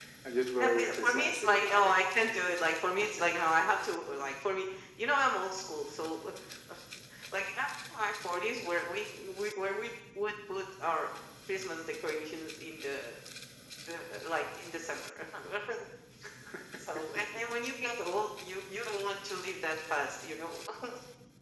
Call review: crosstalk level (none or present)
present